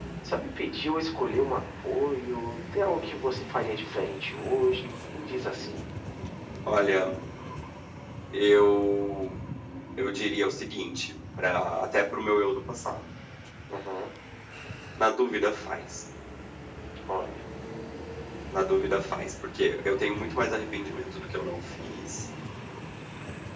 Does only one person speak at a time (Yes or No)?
Yes